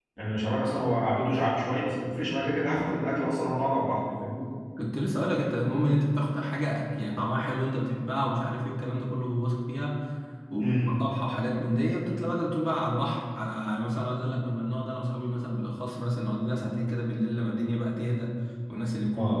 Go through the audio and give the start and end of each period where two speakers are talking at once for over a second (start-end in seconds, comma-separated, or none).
none